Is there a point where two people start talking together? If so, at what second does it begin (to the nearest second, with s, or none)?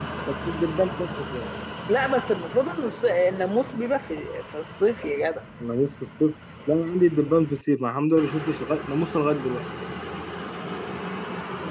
none